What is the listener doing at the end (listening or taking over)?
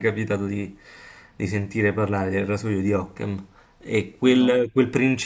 listening